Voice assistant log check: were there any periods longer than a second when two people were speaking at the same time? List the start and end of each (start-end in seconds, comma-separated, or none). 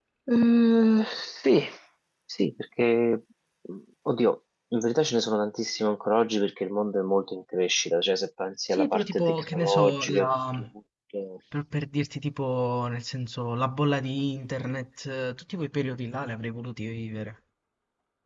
8.7-10.6